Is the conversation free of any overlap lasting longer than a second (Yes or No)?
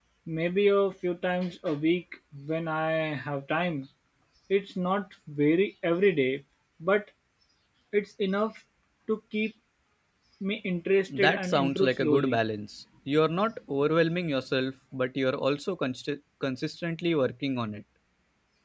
No